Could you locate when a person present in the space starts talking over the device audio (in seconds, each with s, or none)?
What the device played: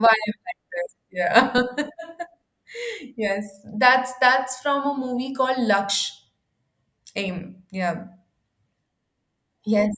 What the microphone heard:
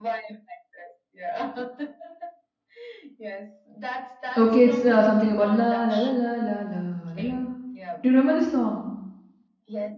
4.4 s